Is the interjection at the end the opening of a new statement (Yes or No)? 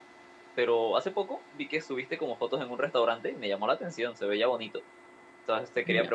No